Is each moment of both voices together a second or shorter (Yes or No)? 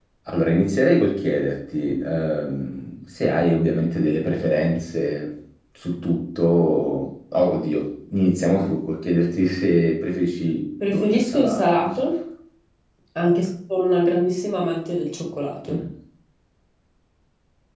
No